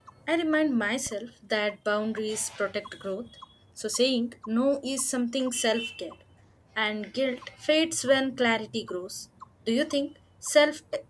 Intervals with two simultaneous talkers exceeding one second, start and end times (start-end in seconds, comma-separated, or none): none